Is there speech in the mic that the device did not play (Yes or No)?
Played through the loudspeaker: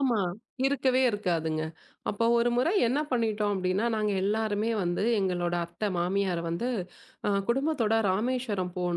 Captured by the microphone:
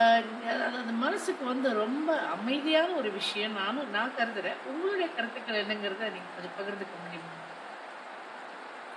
Yes